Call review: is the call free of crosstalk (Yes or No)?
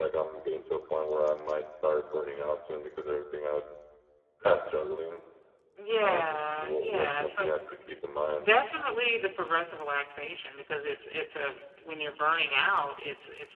No